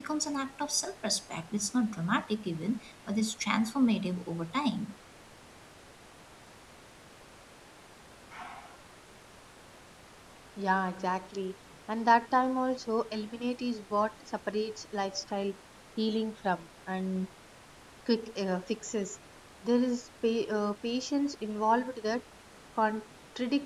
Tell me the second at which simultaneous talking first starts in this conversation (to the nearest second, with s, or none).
none